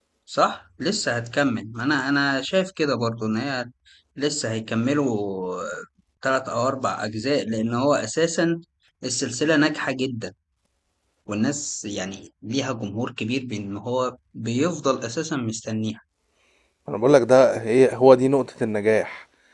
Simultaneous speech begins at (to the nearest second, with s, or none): none